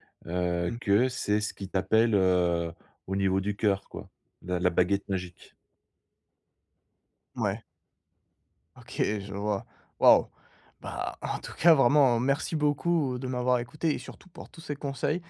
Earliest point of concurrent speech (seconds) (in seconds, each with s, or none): none